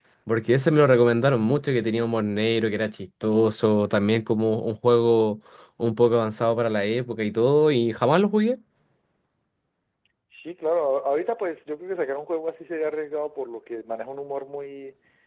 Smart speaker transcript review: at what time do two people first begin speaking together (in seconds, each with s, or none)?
none